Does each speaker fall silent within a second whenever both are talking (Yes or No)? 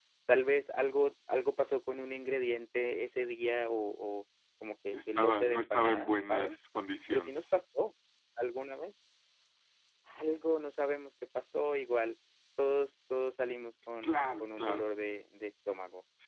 No